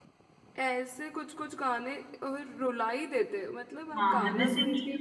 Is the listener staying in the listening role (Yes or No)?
No